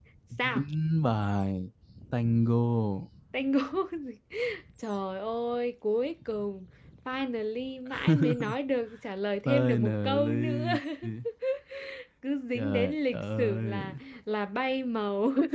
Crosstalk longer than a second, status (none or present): present